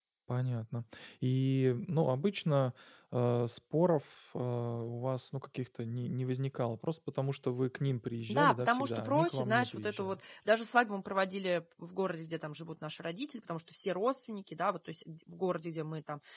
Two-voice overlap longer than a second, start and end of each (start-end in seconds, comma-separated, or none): 8.3-10.2